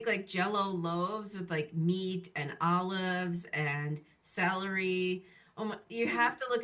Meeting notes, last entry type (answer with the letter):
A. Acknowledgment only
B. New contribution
A